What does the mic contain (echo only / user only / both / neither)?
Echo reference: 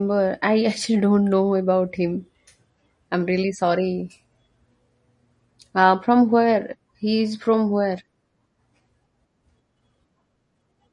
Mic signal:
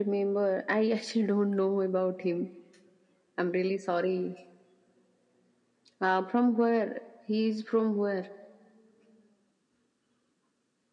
echo only